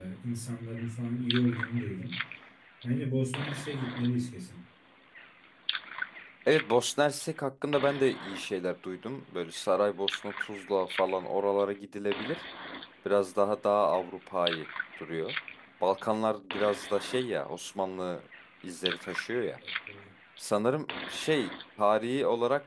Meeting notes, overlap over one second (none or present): none